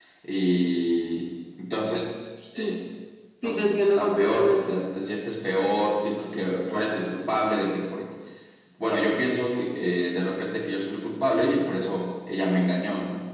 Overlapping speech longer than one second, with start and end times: 3.4-4.8

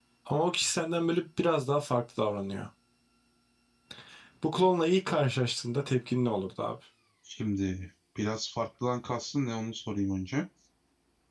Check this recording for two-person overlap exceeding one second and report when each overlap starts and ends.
none

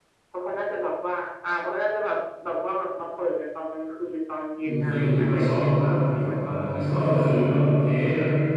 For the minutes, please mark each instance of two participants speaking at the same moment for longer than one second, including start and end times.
4.6-7.2

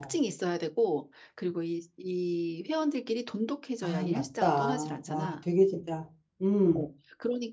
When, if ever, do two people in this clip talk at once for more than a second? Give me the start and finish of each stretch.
3.8-5.3

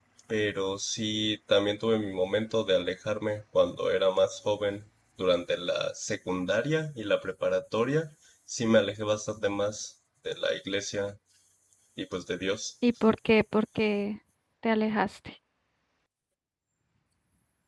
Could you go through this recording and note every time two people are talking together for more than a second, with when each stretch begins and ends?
none

